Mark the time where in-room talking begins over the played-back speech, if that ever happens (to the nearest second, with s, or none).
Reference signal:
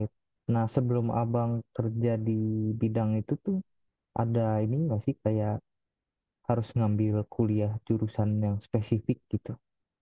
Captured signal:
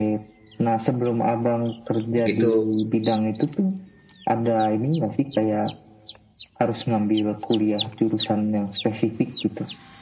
2 s